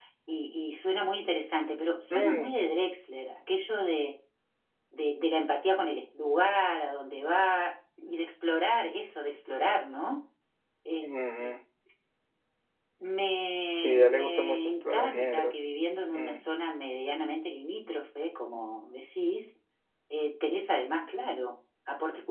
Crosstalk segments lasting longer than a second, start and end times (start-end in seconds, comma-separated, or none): 13.7-15.6